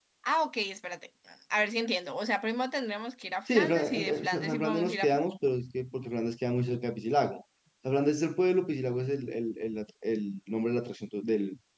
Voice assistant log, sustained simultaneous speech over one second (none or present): present